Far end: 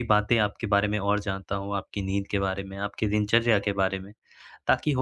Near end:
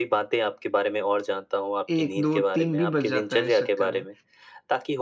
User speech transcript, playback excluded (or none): 1, 2, 3 भी बज जाता है इस चक्कर में।